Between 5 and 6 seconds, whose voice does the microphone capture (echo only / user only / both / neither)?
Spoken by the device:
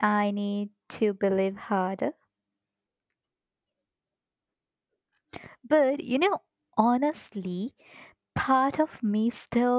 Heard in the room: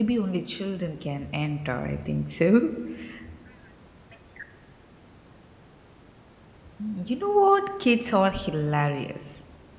neither